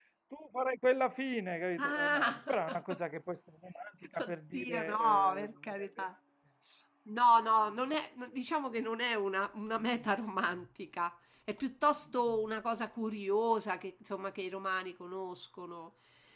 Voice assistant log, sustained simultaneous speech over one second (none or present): present